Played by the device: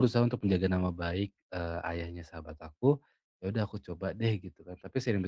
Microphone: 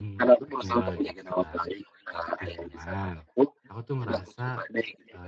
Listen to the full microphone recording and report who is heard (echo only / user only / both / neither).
both